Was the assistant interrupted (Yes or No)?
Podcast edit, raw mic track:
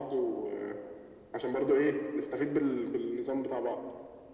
No